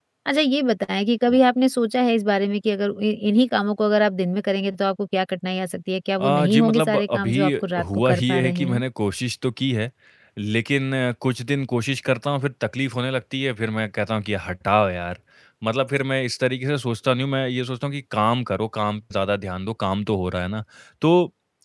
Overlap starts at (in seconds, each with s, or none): 6.2 s